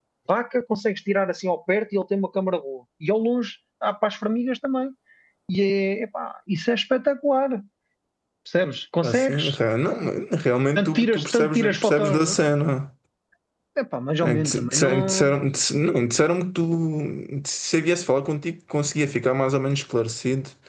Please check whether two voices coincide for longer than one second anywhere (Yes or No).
Yes